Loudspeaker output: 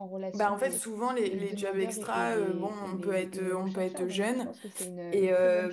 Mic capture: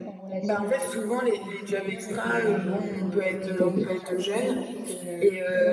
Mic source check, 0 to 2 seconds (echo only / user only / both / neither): echo only